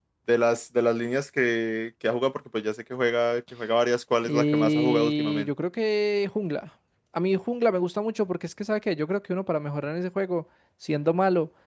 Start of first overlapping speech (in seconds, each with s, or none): 4.2 s